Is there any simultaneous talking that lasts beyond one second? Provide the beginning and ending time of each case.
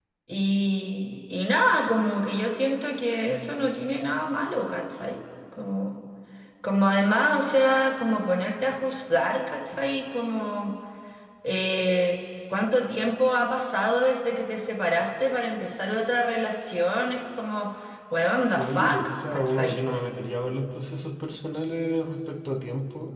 18.4-19.8

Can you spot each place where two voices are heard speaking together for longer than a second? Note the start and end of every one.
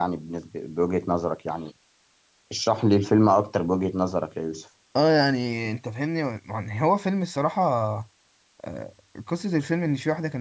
none

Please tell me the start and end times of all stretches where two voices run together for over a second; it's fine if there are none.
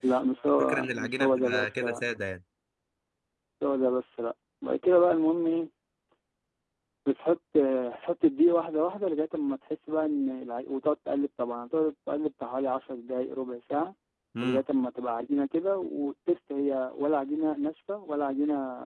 0.6-2.0

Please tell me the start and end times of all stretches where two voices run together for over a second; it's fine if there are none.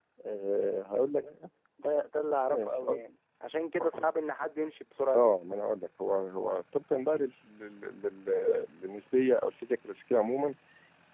none

